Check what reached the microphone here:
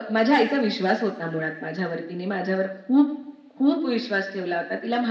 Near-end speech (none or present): none